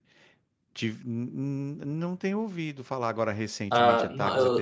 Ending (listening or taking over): taking over